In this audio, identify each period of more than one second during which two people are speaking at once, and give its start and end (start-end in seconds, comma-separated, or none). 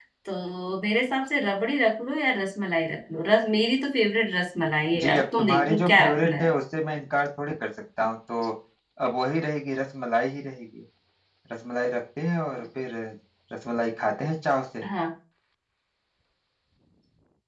5.0-6.5